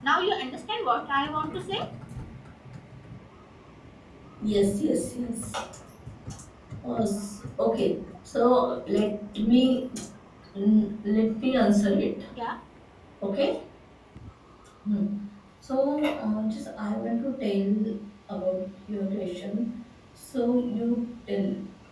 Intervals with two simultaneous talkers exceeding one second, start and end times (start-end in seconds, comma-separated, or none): none